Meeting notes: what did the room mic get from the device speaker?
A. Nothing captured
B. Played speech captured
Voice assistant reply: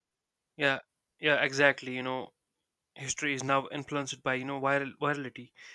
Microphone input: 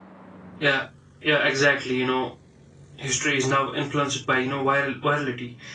B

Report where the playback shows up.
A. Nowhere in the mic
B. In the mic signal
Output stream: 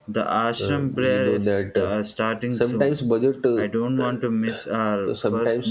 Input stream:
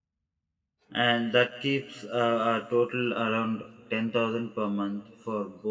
A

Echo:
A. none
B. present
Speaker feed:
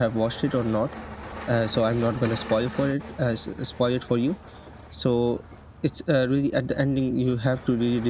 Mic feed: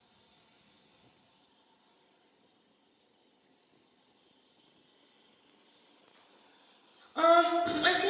A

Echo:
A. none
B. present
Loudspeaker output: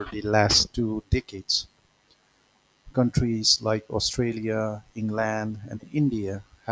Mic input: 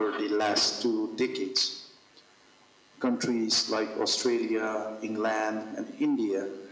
B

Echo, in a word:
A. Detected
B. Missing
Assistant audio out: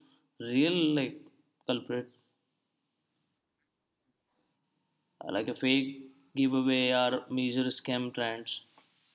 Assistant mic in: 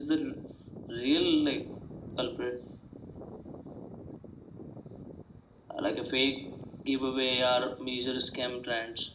A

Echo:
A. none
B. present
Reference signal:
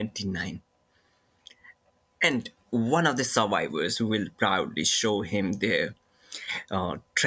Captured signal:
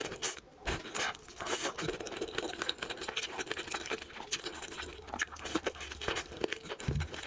A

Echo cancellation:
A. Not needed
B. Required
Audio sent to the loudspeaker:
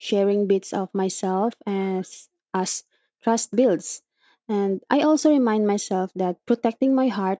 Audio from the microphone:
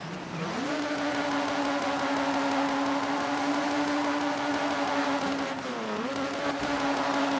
A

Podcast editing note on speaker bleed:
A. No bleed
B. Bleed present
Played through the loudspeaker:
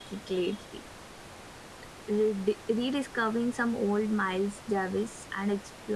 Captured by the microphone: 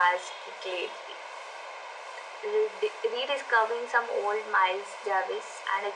B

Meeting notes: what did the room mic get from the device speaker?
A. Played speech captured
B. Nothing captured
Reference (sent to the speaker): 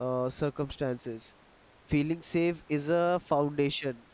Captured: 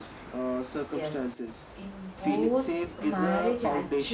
A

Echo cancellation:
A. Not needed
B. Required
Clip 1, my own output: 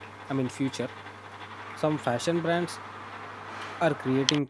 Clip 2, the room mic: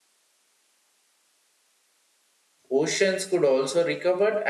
A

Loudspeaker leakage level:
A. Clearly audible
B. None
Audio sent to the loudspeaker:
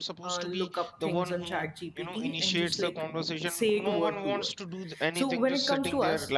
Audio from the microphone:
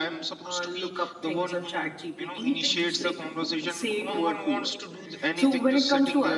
A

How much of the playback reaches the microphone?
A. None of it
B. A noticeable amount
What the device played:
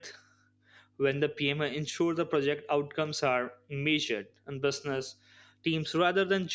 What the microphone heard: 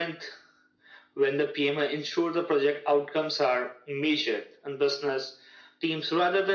B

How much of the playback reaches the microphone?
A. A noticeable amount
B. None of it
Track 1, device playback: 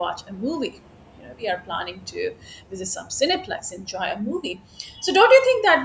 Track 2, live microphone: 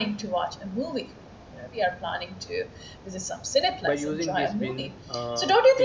A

